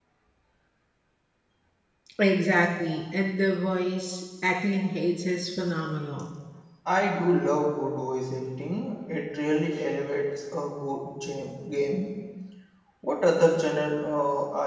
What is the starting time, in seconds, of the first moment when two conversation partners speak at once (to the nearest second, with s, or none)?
none